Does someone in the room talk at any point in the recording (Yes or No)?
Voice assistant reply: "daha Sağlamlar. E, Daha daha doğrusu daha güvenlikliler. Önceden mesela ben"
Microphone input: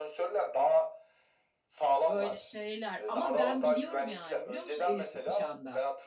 Yes